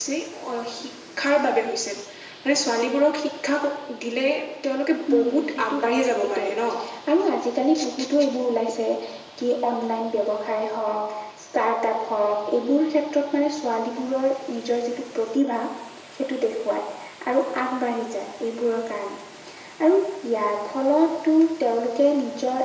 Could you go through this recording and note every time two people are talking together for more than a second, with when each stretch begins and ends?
5.1-6.5

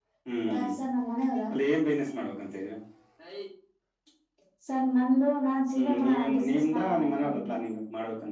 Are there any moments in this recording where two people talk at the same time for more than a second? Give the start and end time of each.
5.8-7.4

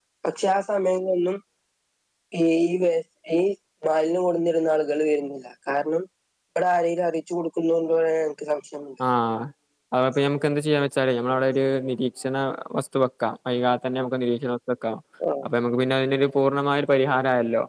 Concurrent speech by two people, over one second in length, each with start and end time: none

